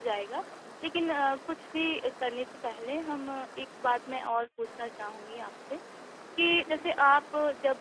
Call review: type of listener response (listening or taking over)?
listening